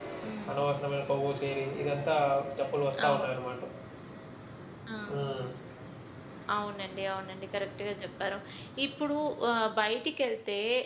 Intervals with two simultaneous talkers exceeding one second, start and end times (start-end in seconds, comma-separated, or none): none